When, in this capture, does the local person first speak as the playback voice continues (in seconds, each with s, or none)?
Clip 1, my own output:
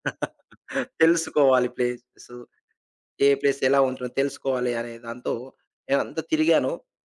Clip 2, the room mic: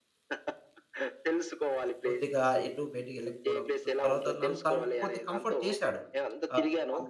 2.1 s